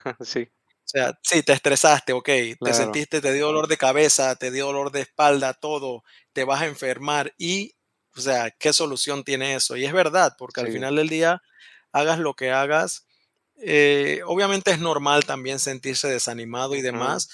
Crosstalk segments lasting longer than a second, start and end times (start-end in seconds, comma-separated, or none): none